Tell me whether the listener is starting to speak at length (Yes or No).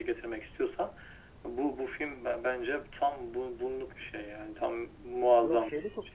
Yes